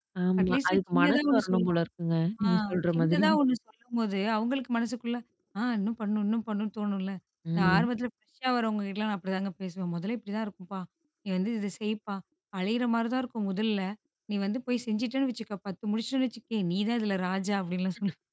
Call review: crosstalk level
present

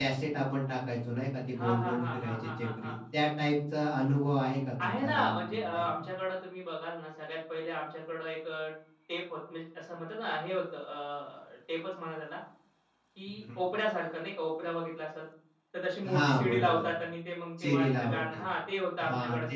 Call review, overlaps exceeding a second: present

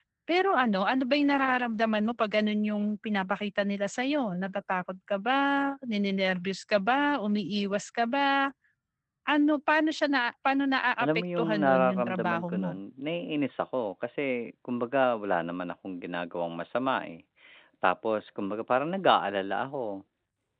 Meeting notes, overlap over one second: present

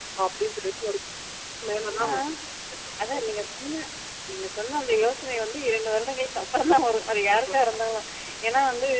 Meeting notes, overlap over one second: none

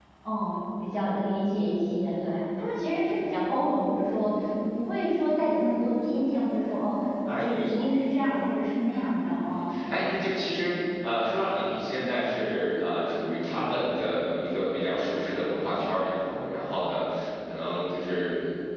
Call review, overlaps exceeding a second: none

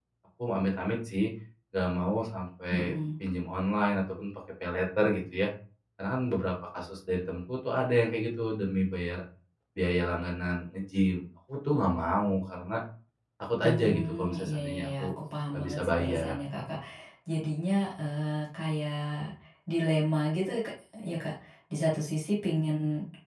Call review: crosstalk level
present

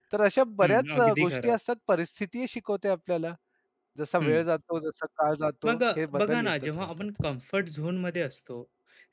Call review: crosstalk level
present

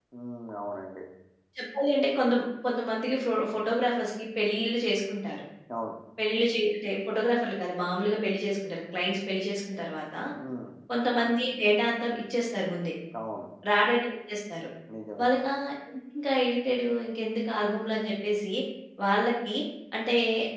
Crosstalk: none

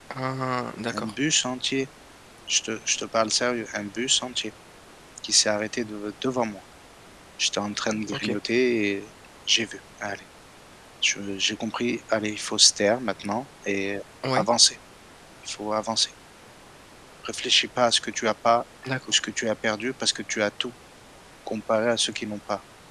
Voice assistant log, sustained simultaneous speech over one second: none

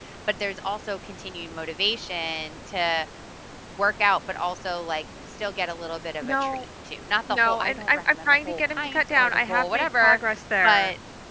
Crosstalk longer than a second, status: present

